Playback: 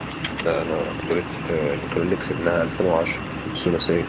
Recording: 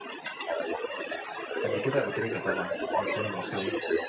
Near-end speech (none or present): present